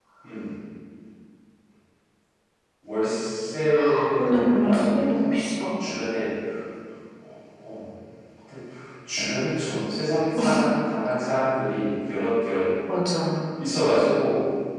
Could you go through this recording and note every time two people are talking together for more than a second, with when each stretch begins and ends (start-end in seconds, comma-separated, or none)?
3.9-5.6